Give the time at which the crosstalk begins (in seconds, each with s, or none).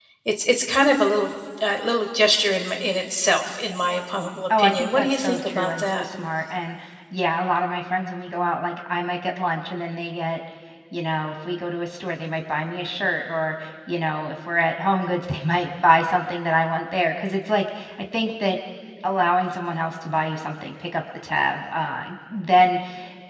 4.5 s